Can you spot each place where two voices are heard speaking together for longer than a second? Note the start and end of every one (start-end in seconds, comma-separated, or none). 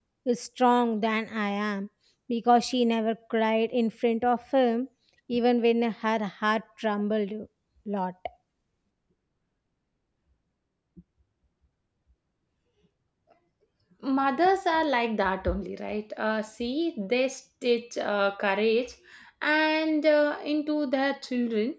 none